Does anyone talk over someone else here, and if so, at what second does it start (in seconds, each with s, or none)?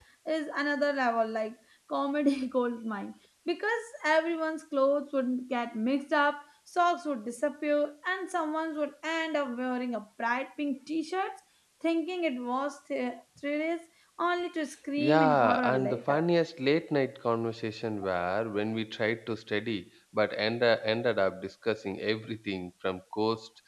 15.0 s